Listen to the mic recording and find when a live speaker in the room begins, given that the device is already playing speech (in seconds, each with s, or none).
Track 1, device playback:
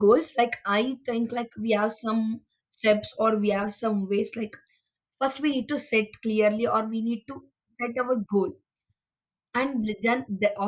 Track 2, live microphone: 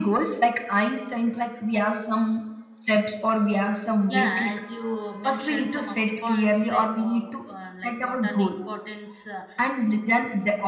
4.1 s